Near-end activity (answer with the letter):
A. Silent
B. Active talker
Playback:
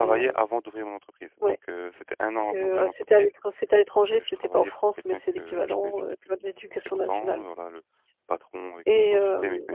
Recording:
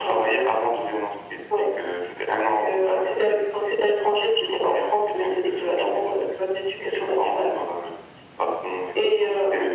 A